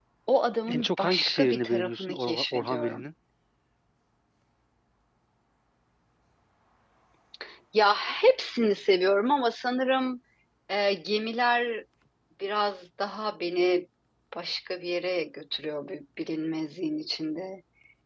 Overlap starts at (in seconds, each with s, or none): 0.7 s